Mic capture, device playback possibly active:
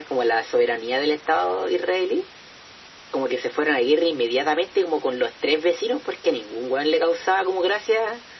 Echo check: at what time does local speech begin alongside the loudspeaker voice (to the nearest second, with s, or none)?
none